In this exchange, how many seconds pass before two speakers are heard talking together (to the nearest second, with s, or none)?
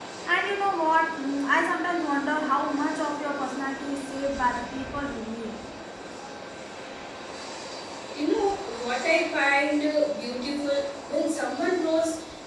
none